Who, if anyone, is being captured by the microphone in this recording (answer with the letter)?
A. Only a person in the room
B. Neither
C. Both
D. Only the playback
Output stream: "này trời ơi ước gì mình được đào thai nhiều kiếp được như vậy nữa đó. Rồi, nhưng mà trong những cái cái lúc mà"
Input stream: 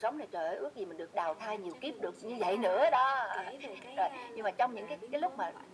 C